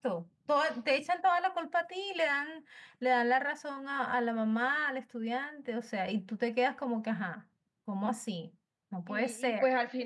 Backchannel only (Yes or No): No